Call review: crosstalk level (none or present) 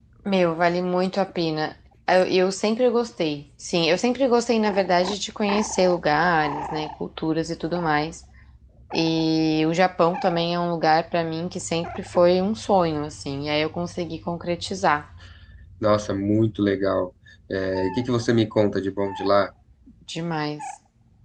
none